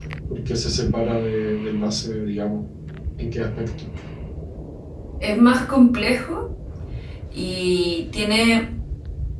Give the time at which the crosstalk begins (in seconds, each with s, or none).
none